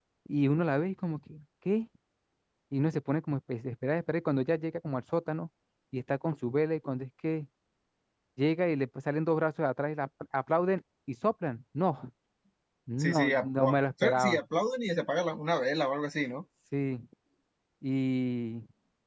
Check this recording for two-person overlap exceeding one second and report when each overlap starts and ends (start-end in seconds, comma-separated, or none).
13.0-14.4